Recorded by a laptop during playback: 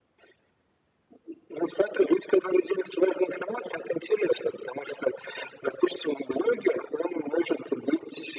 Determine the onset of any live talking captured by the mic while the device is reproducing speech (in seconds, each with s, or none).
none